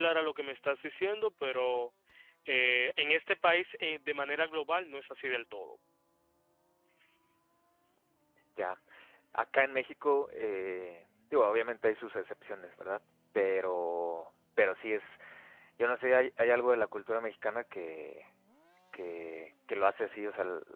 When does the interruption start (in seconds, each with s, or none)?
none